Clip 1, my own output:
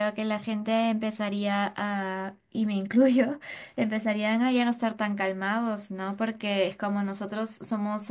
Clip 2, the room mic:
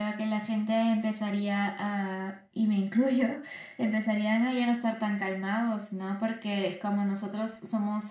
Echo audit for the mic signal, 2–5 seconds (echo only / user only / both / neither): echo only